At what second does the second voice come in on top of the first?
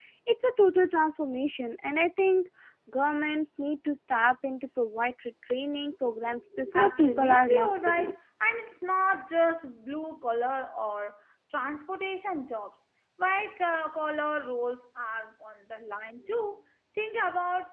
6.7 s

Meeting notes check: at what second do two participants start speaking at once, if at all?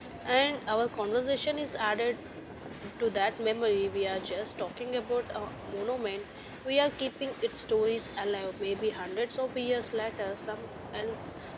none

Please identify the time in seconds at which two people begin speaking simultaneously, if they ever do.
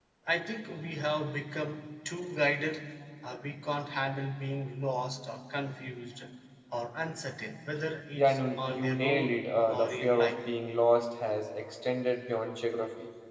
8.2 s

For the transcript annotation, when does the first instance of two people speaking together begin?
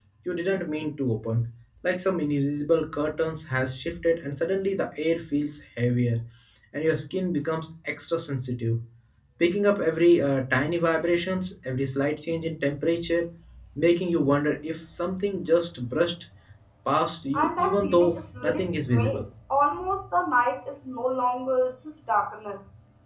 17.3 s

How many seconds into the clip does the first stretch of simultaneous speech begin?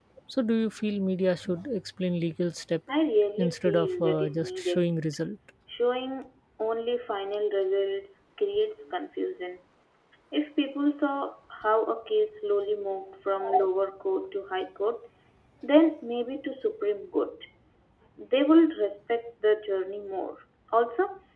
3.4 s

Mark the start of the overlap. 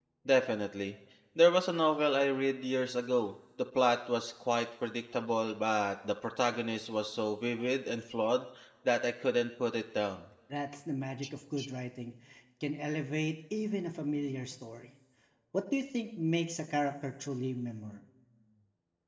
none

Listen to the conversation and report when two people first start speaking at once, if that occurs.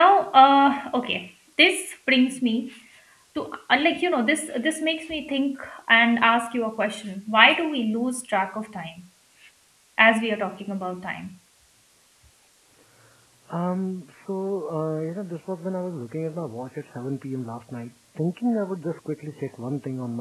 none

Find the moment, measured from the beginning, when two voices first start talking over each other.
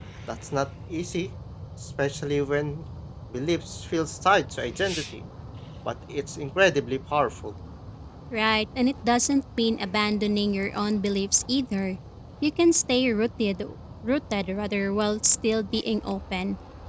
none

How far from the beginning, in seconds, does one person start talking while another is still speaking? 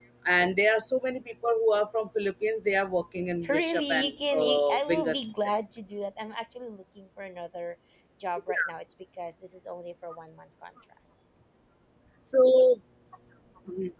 3.4 s

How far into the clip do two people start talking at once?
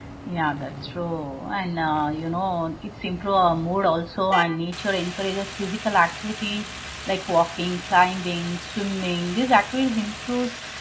none

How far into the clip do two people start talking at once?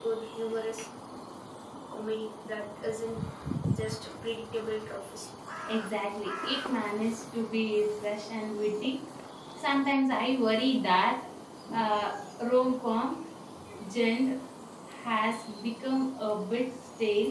none

